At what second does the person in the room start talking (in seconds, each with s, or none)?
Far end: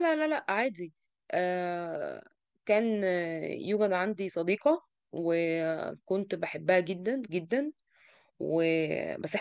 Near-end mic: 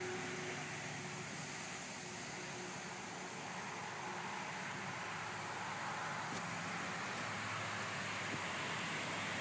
none